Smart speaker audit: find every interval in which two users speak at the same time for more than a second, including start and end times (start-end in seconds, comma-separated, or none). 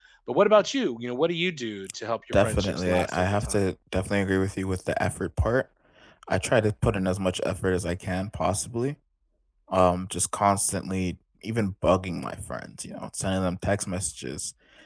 2.3-3.6